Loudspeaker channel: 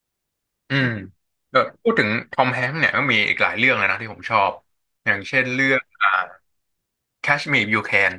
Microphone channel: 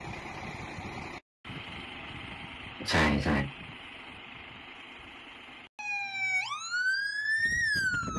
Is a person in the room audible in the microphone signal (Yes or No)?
Yes